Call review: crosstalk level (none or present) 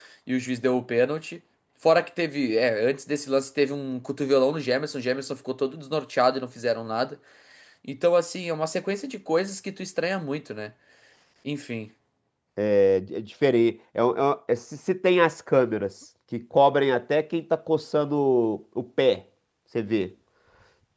none